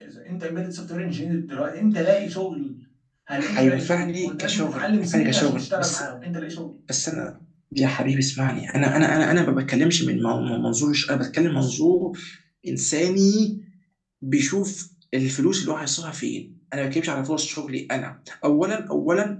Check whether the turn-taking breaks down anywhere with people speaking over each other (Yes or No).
Yes